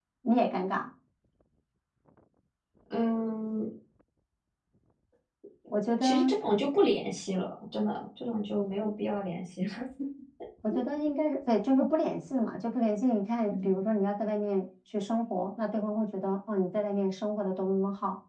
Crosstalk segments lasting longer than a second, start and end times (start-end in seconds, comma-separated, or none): none